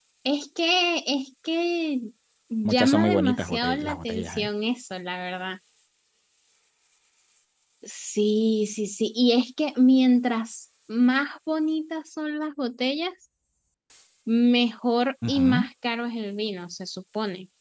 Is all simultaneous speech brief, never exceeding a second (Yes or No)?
No